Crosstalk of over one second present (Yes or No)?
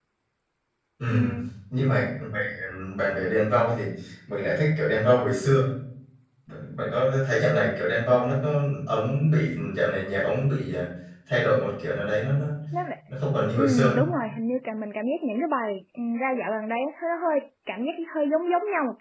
No